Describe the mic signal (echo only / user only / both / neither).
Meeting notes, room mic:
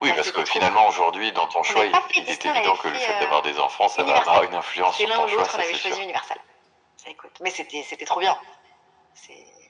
echo only